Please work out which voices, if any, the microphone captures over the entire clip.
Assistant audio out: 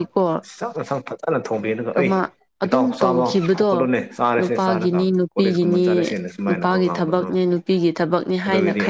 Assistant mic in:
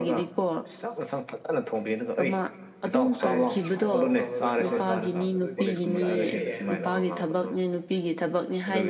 both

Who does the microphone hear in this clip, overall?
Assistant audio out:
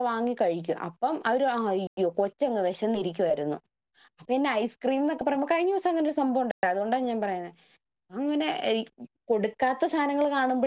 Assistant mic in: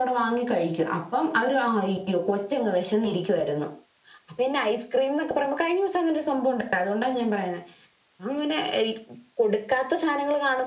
echo only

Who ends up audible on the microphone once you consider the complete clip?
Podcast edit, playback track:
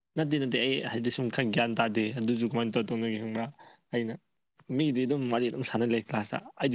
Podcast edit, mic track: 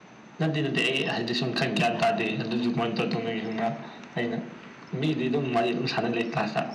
echo only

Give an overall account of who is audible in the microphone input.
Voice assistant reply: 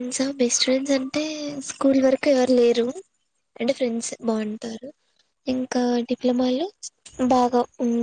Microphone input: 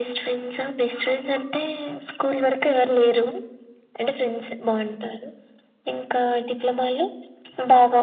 echo only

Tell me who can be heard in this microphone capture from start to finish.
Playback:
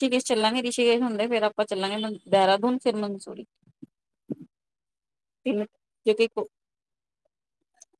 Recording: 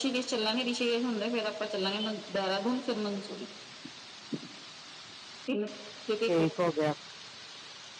both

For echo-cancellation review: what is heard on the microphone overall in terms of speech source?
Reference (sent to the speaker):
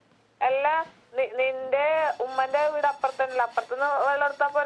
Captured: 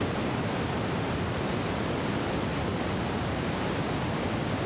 neither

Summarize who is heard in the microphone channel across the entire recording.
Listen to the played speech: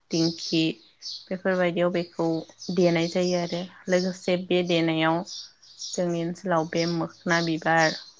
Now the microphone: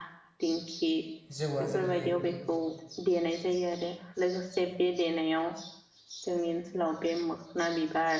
both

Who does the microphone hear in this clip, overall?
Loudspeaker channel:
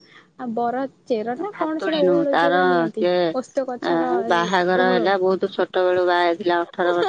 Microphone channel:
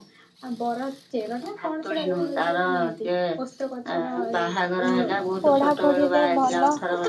both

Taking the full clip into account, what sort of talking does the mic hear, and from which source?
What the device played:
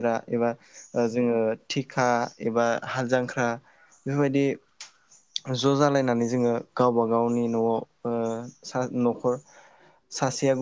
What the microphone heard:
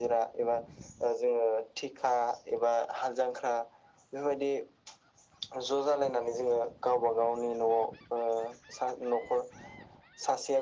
echo only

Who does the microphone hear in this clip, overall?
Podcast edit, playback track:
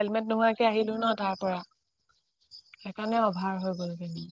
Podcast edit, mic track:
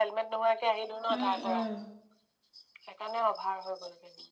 both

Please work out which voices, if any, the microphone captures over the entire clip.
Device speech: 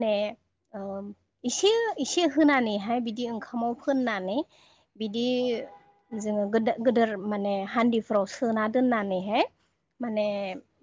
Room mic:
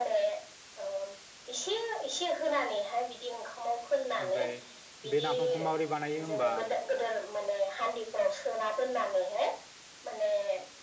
both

